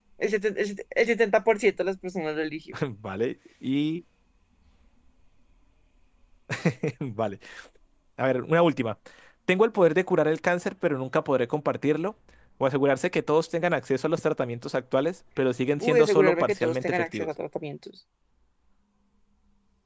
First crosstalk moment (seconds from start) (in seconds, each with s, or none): 15.8 s